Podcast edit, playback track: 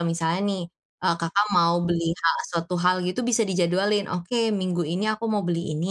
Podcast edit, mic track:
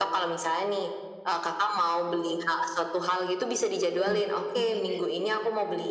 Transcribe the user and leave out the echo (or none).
Oke oke.